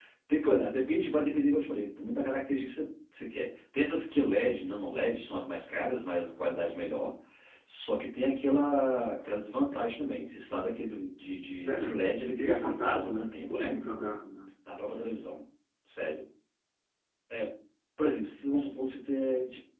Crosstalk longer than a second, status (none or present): present